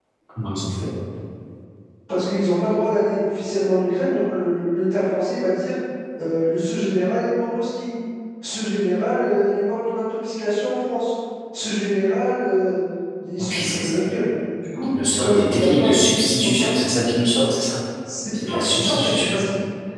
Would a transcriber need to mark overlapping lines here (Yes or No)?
Yes